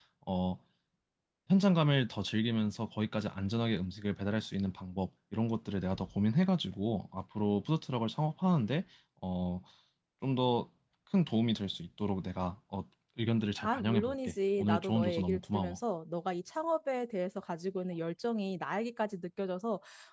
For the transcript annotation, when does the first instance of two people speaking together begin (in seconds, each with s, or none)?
13.6 s